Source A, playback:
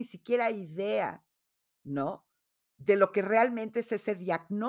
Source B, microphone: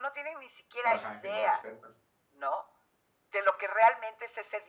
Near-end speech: present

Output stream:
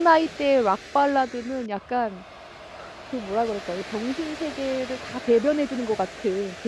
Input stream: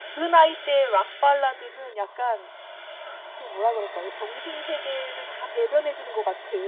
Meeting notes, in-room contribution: none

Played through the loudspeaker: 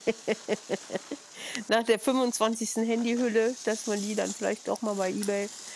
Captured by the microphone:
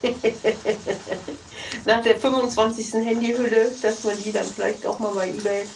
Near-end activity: none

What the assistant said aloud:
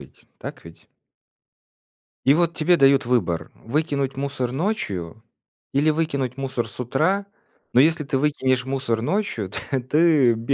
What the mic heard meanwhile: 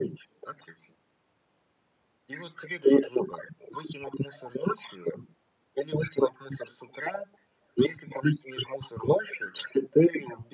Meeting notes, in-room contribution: none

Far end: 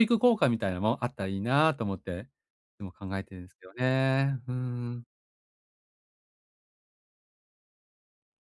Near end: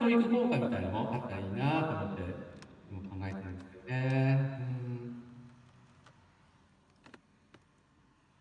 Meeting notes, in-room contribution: none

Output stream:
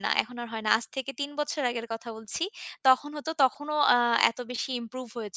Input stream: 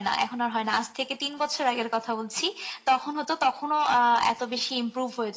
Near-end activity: none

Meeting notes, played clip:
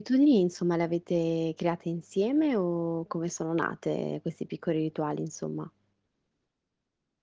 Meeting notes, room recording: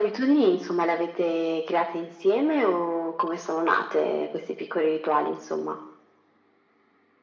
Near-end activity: none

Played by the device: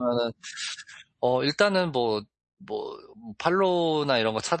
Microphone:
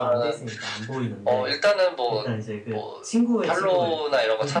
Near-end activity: present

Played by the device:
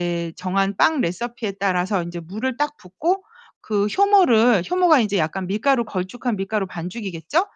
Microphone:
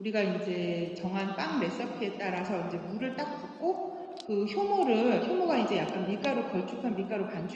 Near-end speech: none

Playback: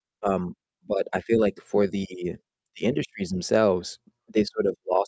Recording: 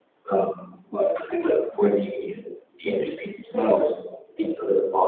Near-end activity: none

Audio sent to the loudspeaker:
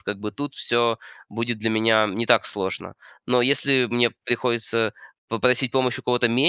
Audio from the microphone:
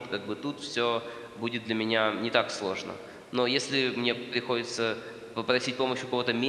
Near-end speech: none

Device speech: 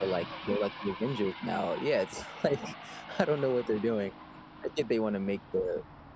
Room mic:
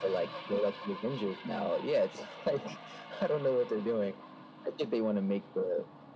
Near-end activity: none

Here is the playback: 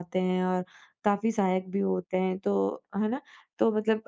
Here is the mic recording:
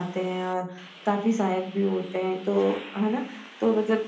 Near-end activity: none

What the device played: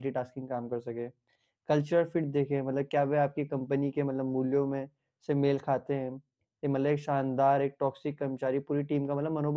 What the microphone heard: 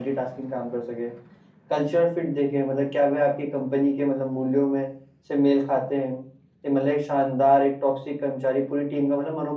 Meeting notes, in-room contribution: none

